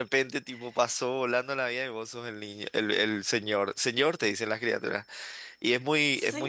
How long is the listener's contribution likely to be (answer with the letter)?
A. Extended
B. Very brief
B